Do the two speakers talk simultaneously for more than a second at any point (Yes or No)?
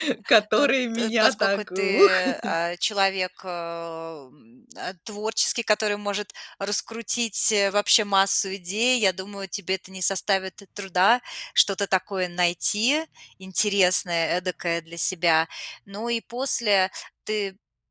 Yes